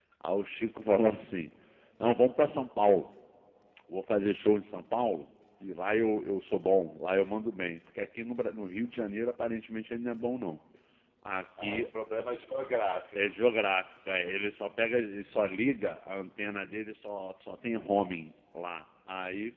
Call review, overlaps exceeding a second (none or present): none